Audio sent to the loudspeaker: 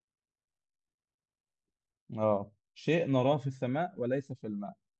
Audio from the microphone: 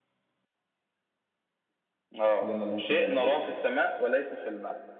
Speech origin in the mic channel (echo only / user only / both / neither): both